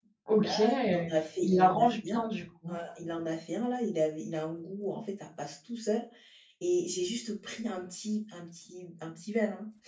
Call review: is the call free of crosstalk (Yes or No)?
No